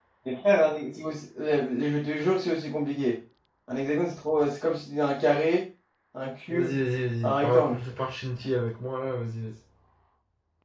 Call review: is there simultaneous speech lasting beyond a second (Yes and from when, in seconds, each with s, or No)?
No